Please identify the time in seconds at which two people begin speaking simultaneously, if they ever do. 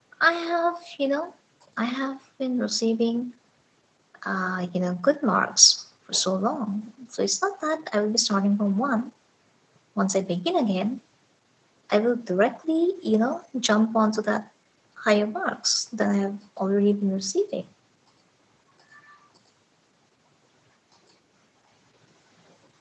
none

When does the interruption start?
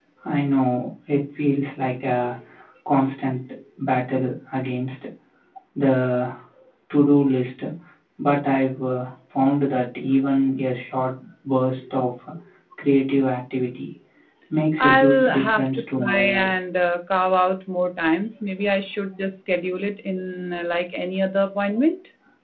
15 s

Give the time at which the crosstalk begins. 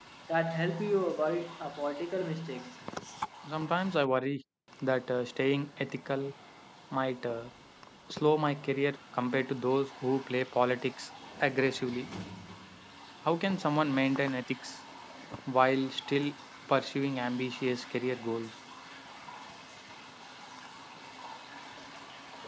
none

